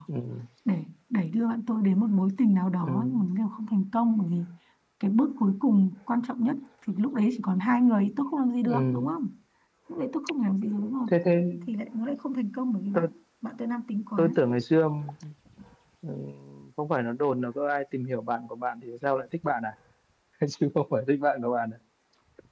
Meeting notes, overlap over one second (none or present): none